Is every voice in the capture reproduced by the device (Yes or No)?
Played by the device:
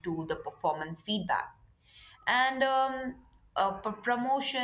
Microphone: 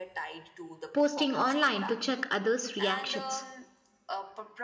No